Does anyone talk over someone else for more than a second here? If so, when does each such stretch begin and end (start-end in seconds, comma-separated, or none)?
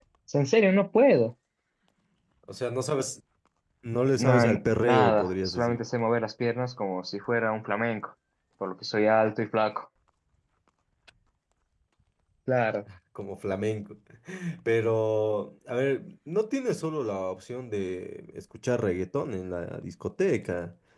4.1-5.8